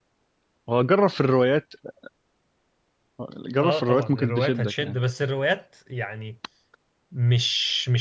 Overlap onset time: 4 s

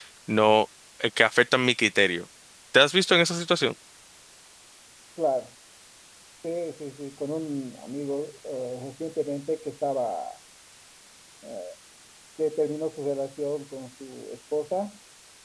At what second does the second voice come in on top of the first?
none

